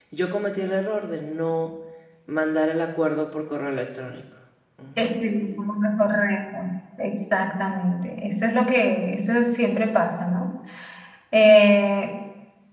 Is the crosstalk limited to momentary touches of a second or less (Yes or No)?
Yes